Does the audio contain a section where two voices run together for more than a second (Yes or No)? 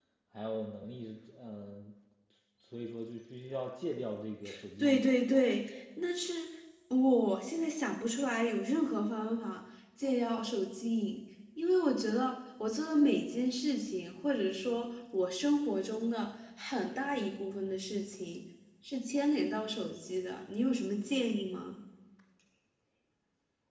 No